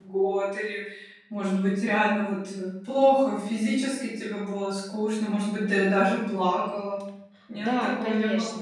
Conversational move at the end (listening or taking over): taking over